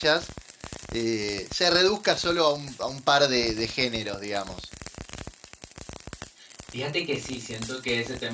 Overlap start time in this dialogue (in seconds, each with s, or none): none